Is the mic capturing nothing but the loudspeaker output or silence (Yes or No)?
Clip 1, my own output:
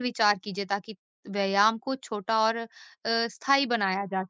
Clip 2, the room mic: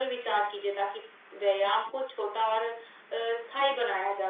Yes